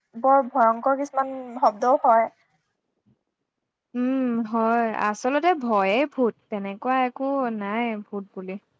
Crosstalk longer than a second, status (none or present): none